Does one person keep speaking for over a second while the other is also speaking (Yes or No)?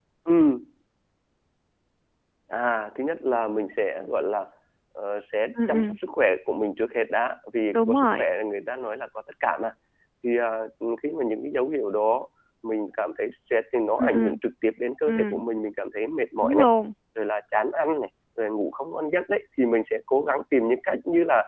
No